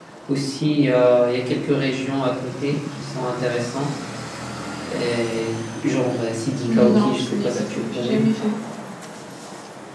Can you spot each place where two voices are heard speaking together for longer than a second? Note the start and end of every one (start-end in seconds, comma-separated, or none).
6.7-8.2